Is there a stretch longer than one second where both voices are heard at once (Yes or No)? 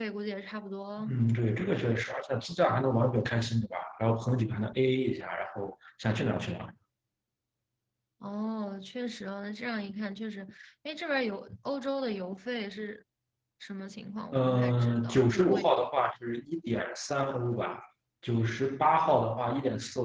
Yes